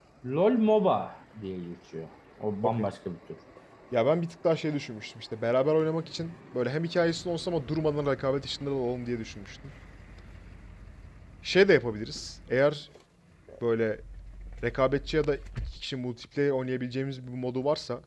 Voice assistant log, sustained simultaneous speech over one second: none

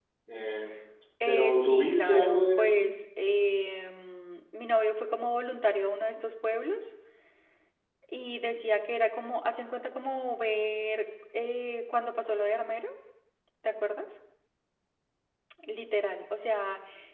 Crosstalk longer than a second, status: present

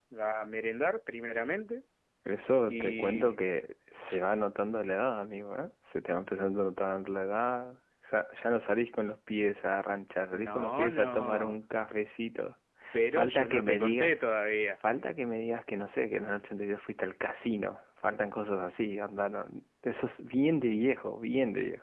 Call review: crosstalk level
present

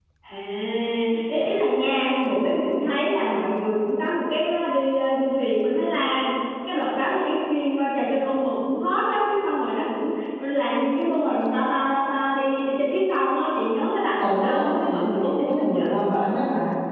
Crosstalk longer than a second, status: present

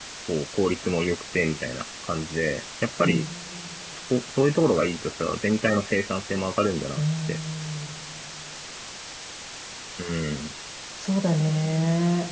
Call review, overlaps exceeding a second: none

